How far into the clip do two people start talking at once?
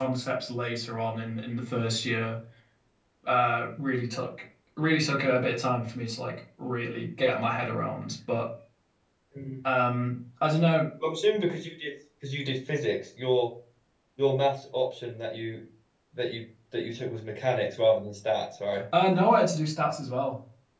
none

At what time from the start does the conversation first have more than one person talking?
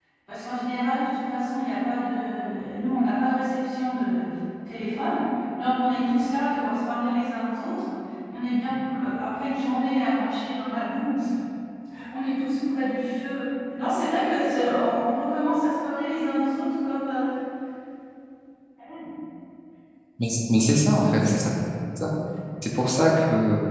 none

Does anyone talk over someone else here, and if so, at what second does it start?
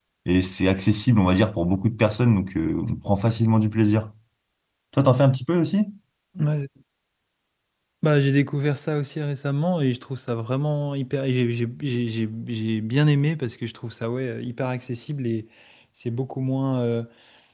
none

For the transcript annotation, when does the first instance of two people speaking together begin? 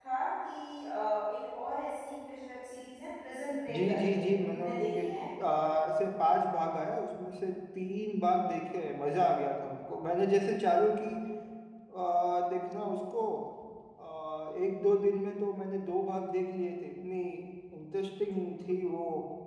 4 s

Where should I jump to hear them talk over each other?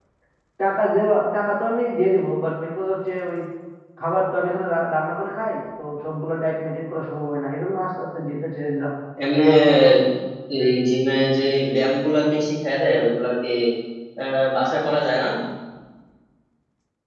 none

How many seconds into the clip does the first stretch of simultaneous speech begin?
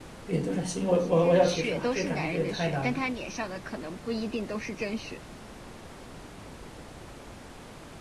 1 s

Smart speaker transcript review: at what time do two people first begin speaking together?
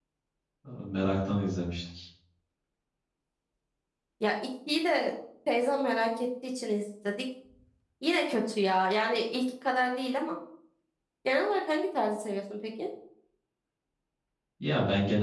none

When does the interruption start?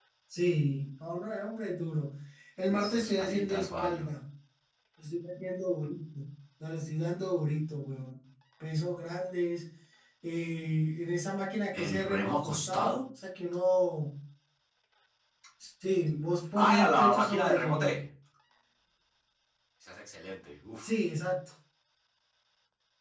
3 s

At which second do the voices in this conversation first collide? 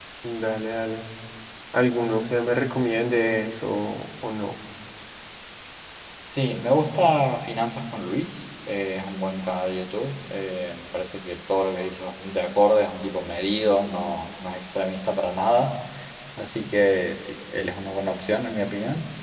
none

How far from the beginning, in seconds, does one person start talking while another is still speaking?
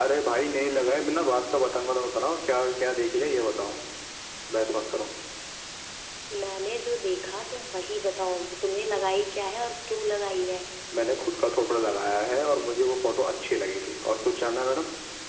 none

